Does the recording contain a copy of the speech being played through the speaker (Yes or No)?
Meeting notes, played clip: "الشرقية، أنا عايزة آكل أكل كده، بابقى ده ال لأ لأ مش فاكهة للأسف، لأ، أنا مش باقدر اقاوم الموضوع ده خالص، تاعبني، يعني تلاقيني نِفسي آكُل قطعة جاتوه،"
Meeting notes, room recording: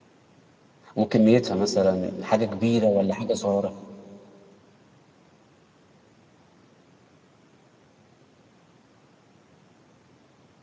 No